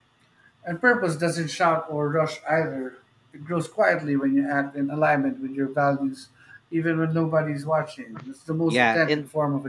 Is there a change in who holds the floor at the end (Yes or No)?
Yes